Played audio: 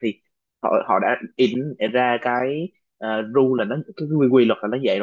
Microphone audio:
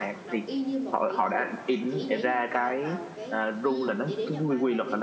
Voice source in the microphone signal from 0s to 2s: both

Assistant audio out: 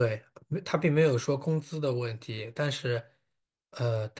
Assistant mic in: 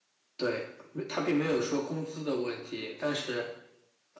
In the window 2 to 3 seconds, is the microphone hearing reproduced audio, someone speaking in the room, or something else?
echo only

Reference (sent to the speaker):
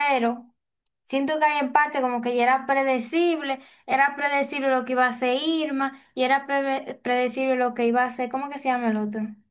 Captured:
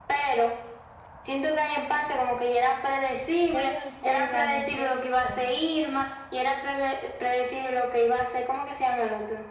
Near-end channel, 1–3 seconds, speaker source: echo only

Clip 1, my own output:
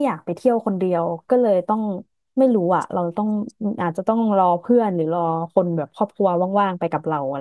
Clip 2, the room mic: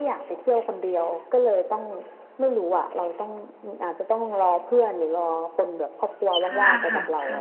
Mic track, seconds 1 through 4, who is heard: echo only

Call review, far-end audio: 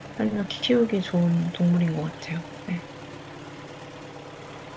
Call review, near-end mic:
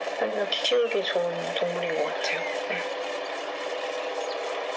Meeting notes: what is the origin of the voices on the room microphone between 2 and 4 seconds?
echo only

